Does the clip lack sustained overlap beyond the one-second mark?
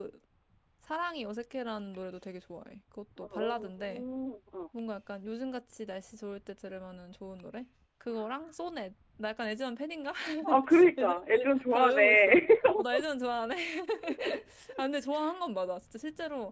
No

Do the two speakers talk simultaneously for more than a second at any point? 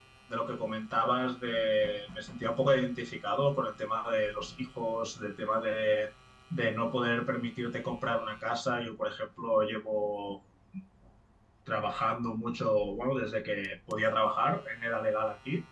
No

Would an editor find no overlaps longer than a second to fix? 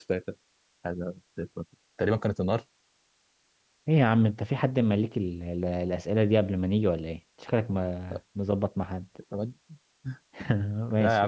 Yes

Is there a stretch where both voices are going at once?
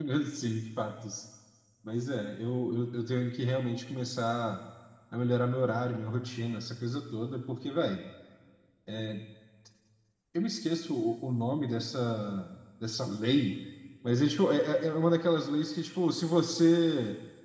No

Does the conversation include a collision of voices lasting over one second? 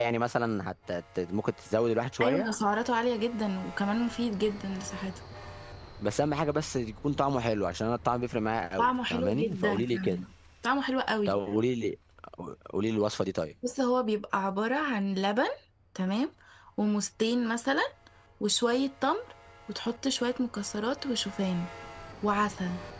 Yes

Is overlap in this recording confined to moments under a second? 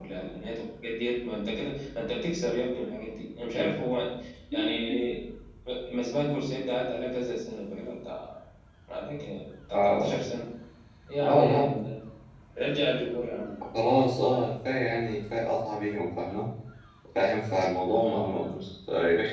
Yes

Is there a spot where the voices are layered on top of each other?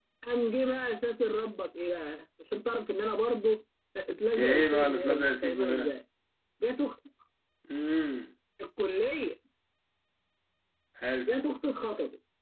Yes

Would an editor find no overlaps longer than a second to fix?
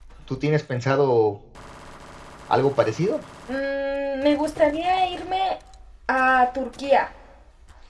Yes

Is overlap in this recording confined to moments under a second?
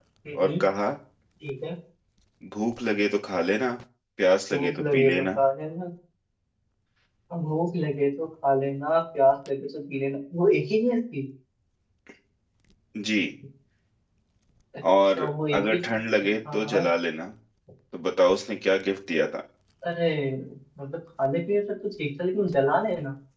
No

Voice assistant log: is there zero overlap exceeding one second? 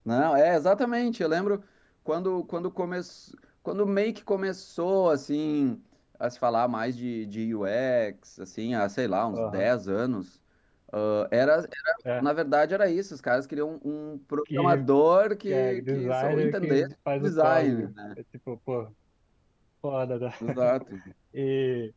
No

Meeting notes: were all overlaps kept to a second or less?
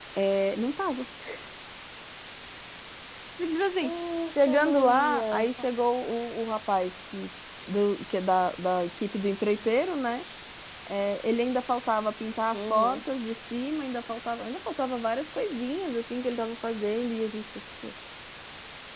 No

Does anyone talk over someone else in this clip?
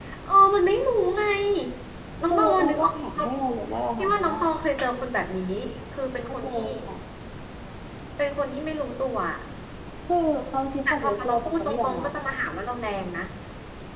Yes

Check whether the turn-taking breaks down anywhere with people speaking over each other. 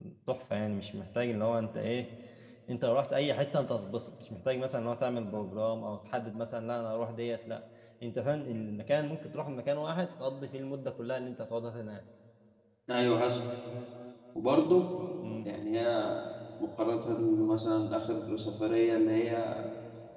No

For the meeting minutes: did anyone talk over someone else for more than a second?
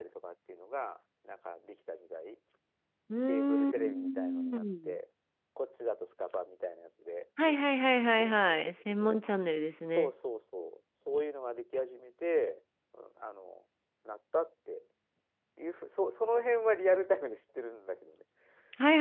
Yes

